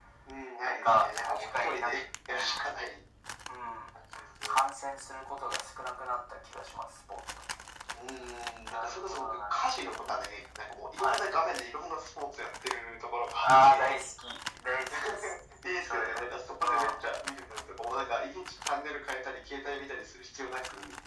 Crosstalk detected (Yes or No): Yes